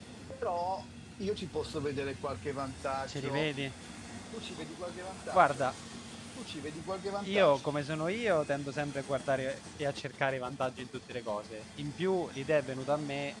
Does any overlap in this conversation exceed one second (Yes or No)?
No